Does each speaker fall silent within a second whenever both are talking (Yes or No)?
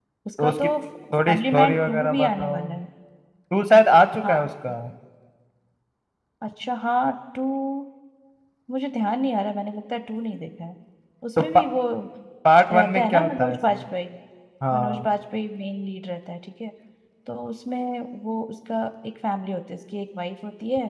No